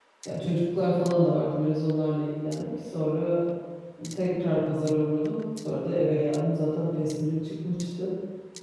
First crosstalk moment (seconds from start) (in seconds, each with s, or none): none